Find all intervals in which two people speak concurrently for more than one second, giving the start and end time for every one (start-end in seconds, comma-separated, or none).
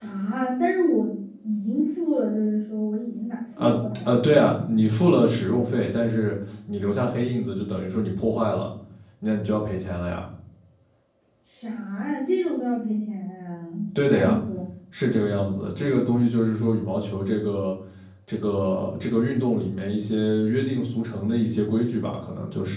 3.6-4.8